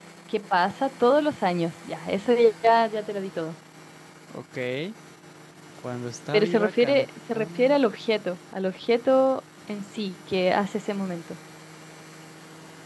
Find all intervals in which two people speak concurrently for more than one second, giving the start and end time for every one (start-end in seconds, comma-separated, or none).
6.3-7.8